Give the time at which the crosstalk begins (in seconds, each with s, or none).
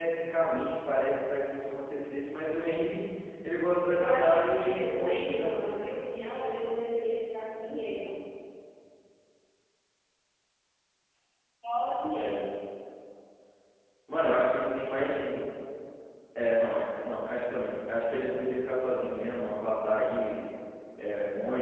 3.9 s